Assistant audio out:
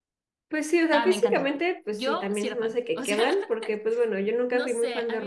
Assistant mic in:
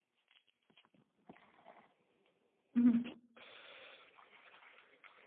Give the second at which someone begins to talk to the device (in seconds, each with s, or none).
2.7 s